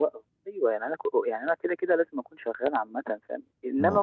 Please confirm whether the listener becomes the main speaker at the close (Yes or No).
No